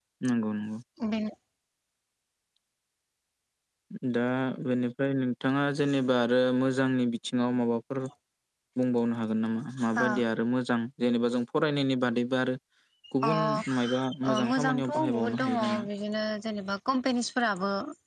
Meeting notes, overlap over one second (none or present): present